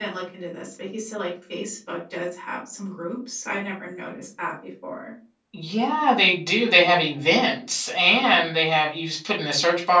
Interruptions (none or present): none